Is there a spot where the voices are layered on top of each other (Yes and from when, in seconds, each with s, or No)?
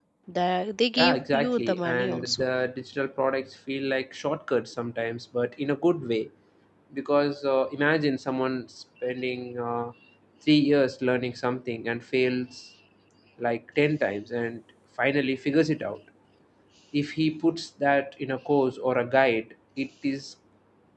Yes, from 1.0 s